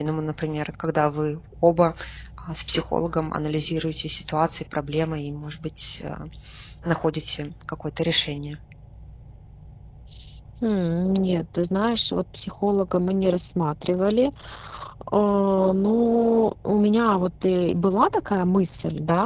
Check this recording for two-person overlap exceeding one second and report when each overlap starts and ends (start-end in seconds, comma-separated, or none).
none